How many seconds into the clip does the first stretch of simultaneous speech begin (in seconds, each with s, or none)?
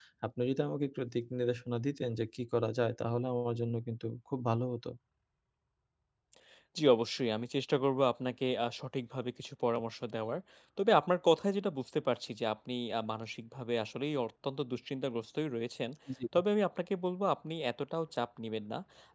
none